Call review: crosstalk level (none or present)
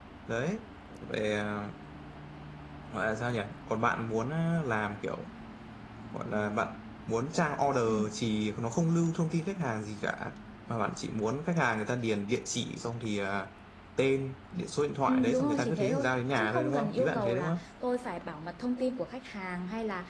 present